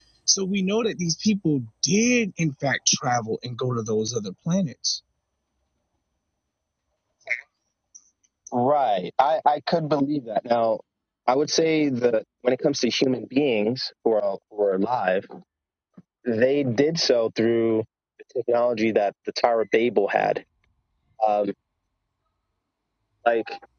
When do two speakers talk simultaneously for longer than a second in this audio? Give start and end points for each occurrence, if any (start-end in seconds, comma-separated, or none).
none